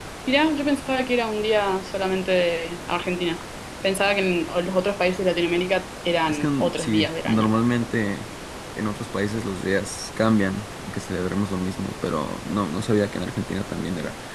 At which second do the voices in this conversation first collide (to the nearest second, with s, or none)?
6 s